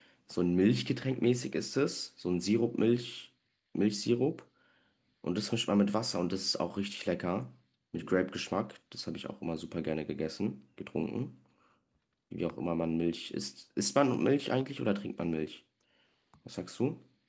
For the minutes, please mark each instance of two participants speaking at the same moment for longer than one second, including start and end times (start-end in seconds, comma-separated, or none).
none